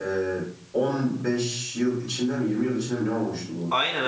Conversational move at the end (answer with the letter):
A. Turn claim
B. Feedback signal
A